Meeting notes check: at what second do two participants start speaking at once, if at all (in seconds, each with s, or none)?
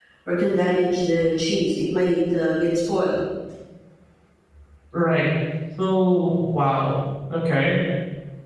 none